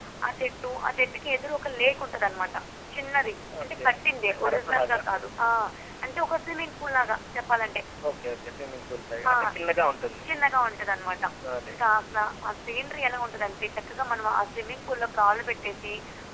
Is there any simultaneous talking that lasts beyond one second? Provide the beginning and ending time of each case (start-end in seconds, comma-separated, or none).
3.6-5.0